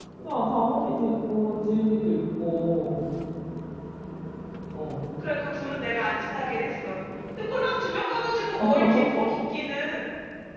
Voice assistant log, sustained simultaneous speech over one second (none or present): none